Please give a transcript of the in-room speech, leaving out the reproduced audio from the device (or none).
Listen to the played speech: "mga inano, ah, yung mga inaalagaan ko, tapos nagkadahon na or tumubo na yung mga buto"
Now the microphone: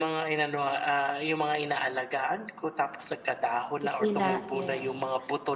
Kusina, yes.